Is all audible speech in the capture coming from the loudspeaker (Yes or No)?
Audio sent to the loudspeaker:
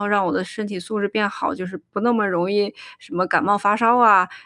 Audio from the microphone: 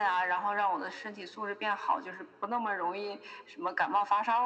Yes